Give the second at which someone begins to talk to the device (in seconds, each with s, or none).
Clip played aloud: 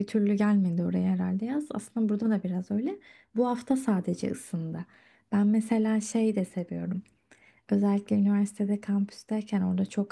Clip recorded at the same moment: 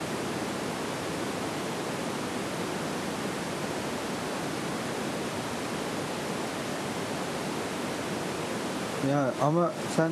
9.0 s